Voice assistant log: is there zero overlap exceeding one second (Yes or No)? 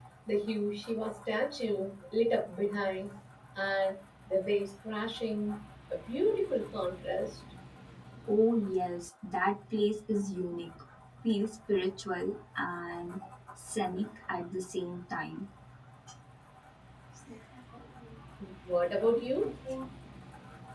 Yes